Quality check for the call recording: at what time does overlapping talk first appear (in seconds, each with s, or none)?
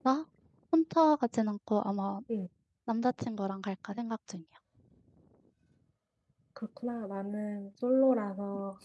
none